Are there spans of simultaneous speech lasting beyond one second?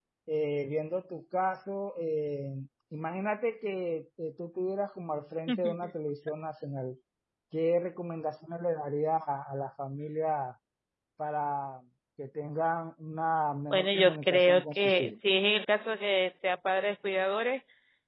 Yes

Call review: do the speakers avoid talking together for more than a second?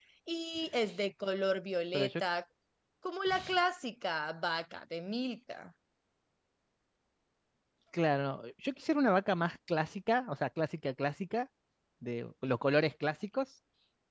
Yes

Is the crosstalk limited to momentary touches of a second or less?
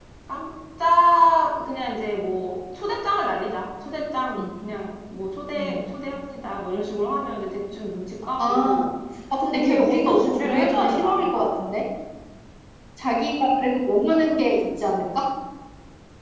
No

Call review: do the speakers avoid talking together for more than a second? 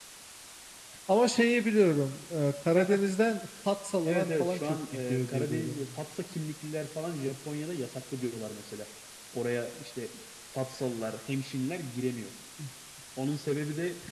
No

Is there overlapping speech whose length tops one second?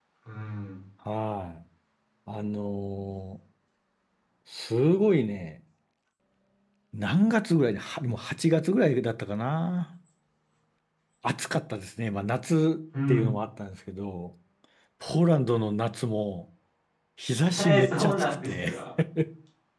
Yes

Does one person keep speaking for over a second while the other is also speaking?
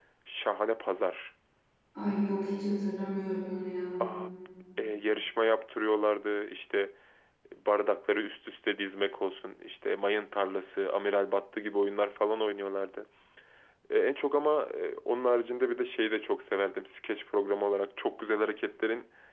No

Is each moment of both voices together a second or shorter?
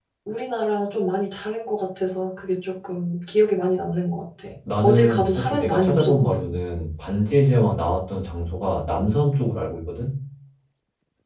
No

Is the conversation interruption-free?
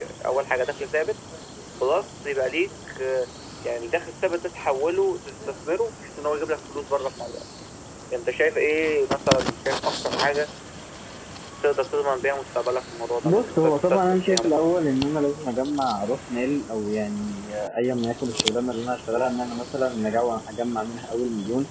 No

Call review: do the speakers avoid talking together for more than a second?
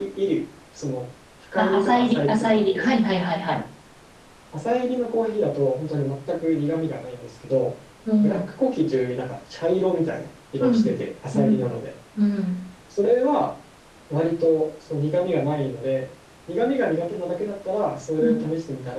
No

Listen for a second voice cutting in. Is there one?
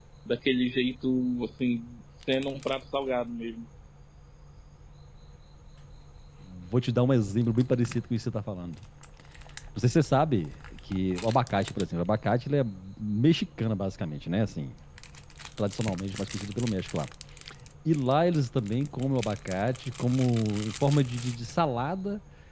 No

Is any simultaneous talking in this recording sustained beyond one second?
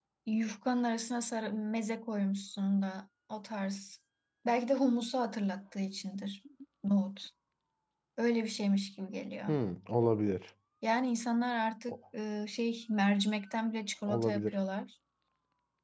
No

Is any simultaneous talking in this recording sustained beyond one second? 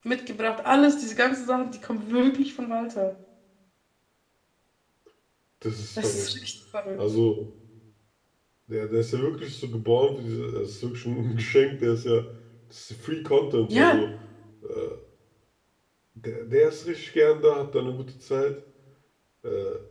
No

